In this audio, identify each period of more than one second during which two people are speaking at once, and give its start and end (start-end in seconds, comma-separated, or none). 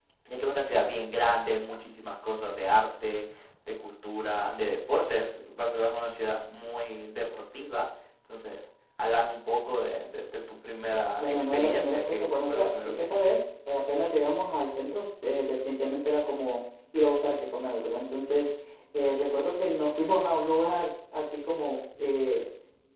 11.2-13.1